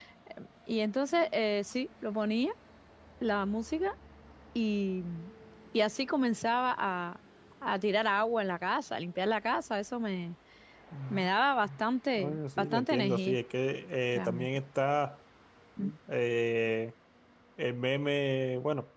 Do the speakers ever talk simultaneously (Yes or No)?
Yes